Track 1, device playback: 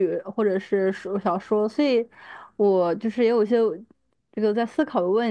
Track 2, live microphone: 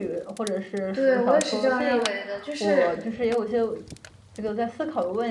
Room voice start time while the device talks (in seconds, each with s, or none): 0.9 s